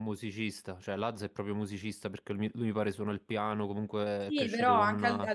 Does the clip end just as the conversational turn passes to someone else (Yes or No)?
Yes